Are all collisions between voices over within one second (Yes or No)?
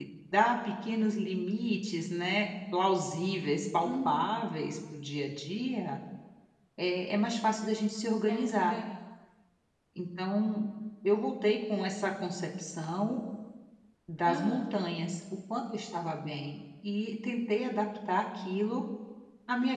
Yes